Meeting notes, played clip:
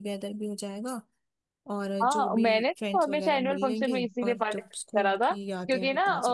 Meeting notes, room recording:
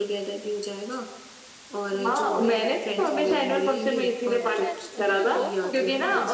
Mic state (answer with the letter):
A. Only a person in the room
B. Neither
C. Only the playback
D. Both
D